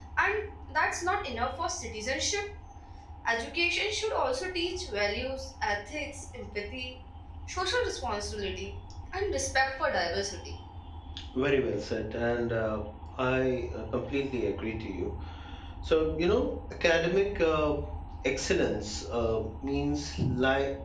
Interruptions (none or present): none